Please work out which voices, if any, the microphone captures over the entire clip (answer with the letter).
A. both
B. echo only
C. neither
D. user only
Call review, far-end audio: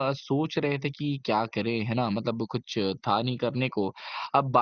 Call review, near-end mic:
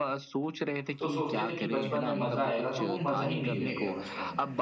A